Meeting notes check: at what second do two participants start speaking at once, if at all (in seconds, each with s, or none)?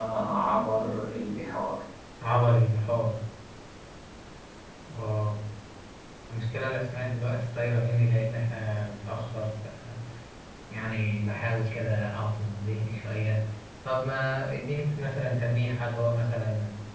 none